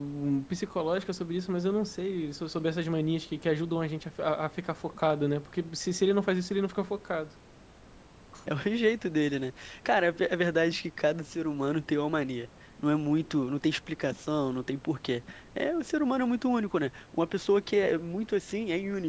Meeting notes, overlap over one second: none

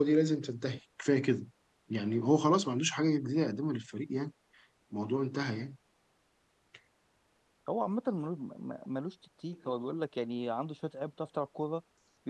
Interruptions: none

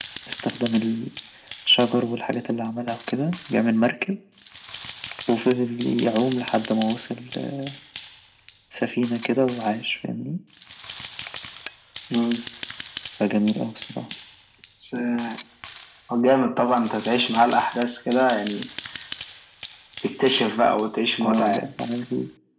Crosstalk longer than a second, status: none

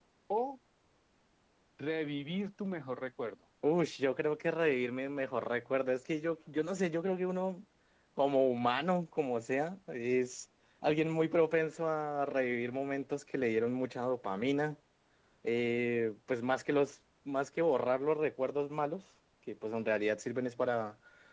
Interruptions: none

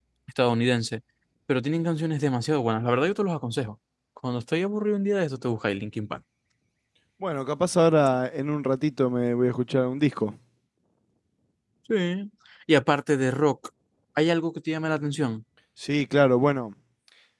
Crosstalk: none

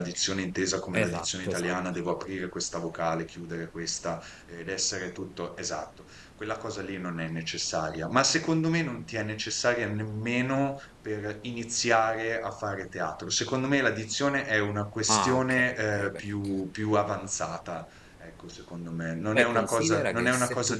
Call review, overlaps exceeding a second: present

